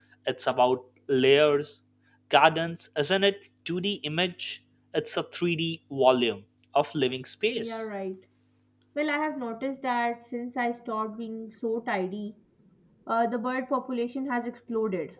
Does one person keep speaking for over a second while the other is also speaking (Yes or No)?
No